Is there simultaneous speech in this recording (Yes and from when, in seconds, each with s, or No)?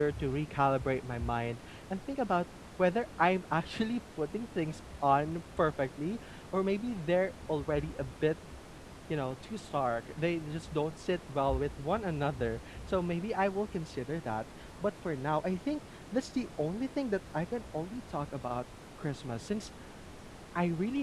No